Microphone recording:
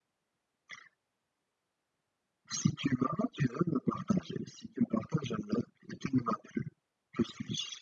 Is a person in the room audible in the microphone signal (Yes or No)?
No